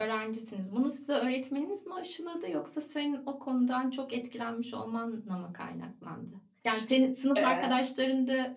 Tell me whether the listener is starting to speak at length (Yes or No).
No